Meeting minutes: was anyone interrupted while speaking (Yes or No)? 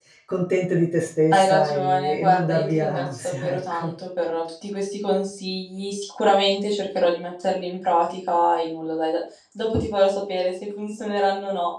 Yes